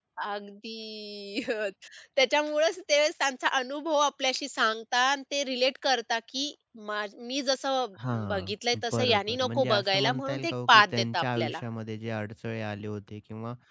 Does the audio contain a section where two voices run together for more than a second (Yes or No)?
Yes